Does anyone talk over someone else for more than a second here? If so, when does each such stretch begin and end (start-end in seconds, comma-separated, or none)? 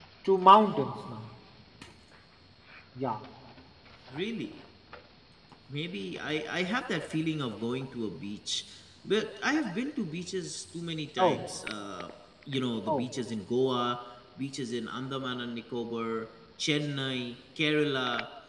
none